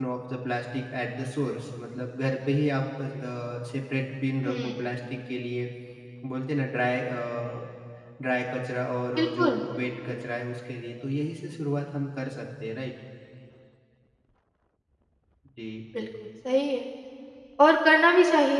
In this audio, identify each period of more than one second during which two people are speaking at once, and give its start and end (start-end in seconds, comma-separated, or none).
none